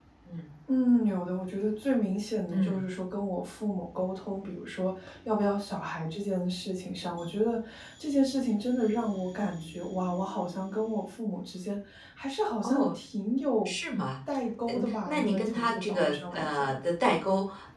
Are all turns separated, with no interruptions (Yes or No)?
No